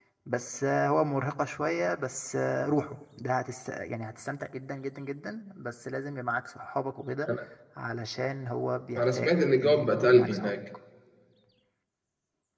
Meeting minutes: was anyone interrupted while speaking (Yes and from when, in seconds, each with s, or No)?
Yes, from 8.9 s